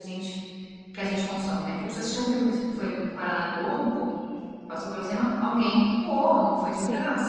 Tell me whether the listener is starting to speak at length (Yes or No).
No